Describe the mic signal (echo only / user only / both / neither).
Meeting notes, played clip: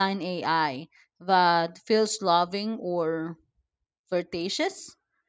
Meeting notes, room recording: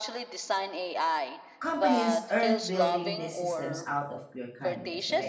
both